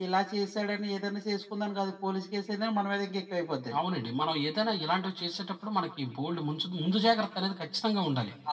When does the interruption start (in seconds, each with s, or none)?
none